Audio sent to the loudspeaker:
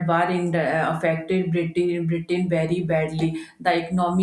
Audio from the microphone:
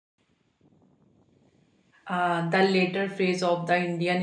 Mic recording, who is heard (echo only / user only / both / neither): user only